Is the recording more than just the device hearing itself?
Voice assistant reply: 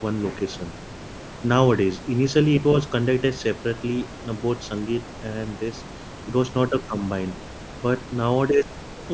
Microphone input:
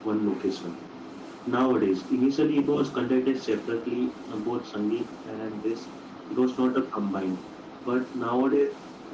No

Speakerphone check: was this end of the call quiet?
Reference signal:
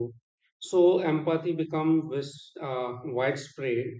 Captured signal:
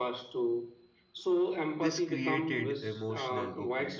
No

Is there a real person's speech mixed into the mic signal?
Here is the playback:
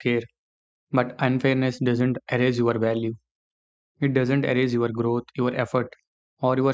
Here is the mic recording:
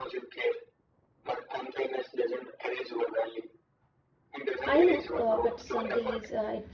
Yes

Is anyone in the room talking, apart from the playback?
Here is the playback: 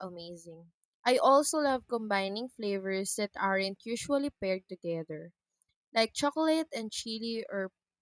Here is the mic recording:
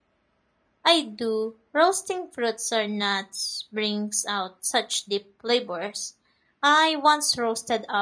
Yes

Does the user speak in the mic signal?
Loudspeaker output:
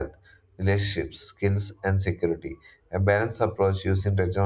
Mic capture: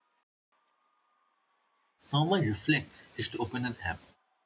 Yes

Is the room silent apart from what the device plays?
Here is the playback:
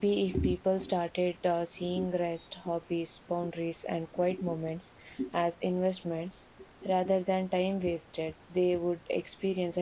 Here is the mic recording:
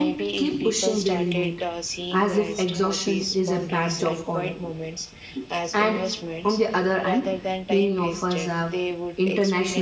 No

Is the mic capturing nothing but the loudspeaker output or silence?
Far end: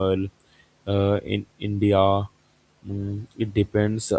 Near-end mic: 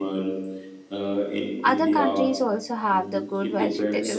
No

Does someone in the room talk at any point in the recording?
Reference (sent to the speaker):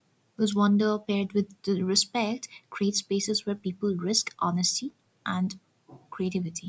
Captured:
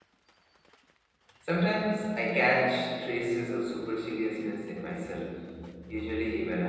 Yes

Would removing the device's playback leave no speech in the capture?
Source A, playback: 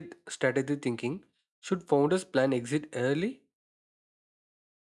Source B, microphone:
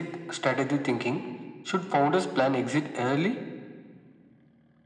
Yes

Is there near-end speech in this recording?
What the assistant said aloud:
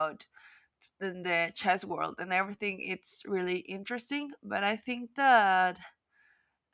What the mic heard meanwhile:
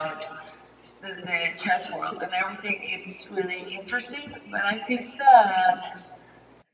No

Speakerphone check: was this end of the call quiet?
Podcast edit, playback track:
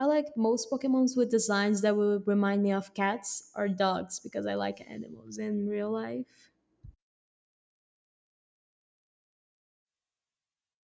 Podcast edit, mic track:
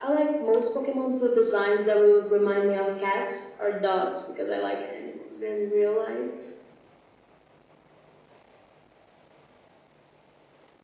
Yes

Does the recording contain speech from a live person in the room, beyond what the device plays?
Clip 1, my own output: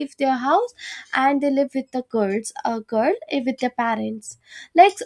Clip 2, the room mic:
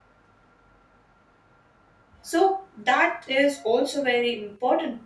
Yes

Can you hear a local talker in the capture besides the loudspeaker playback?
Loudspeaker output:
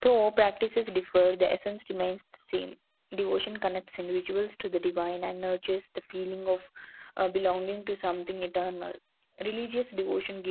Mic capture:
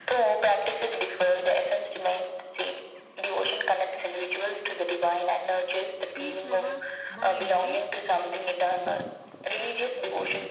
Yes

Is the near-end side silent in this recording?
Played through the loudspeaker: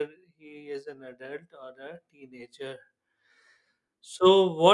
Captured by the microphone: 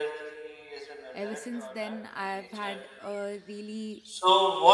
No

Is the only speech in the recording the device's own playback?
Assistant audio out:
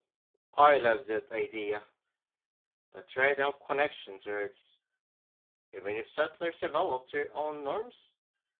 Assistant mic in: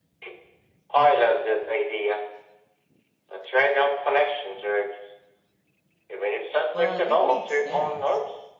No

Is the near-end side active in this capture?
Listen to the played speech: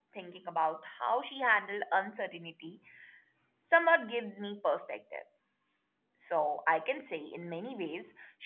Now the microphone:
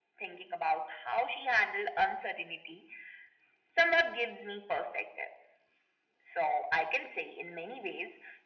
No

